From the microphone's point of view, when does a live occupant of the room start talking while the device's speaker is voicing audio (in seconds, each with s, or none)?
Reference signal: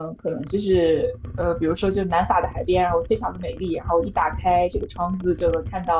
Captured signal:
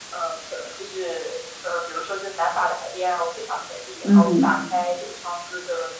4.0 s